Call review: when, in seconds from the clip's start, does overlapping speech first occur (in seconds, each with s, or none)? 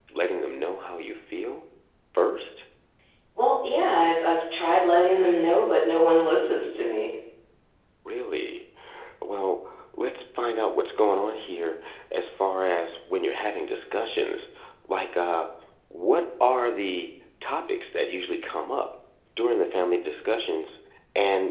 none